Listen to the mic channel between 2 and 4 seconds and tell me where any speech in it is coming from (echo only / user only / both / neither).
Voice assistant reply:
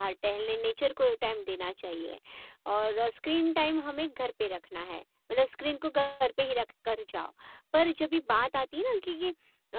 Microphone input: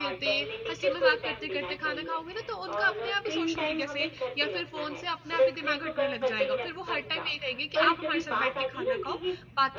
both